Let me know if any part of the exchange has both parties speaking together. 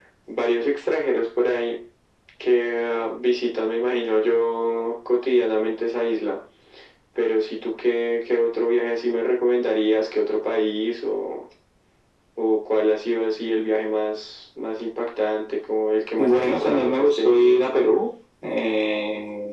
Yes, from 16.2 s

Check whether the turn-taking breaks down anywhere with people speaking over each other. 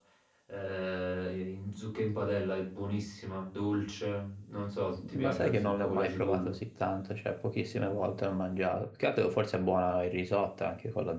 Yes, from 5.0 s

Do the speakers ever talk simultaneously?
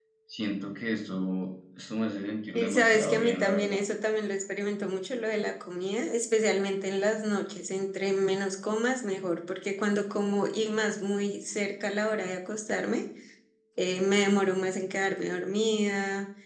Yes, from 2.5 s

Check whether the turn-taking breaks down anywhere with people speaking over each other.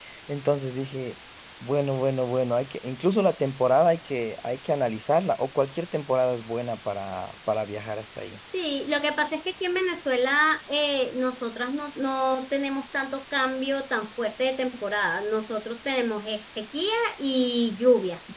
No

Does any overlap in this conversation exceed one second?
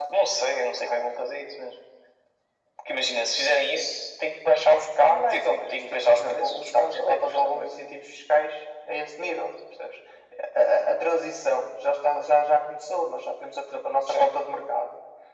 Yes, from 5.0 s

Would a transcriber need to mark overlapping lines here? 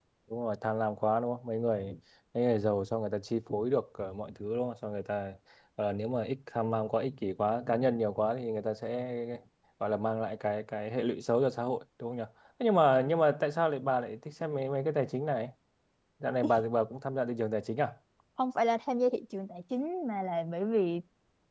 No

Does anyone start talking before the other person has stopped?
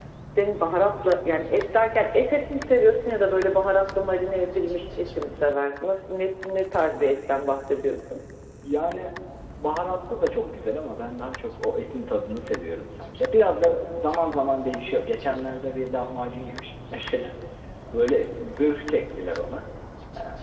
No

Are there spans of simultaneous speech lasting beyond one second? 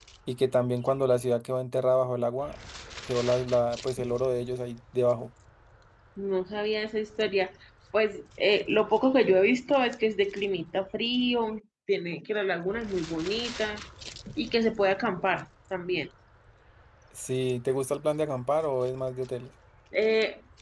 No

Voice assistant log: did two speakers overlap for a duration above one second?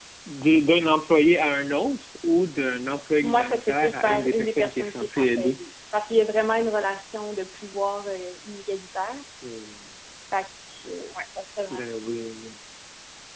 Yes, from 3.2 s

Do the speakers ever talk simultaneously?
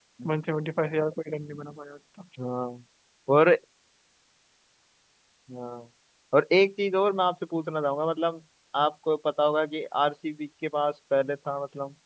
No

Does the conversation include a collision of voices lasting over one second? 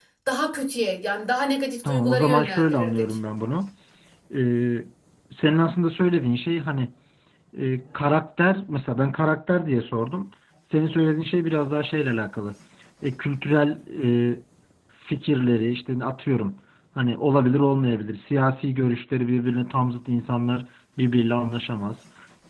Yes, from 1.8 s

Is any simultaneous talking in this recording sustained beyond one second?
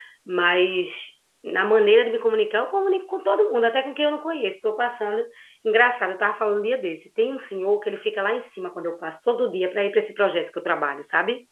No

